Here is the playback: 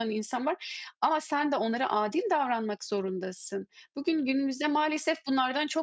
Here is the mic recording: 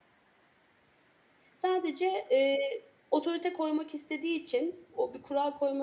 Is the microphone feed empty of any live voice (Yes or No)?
No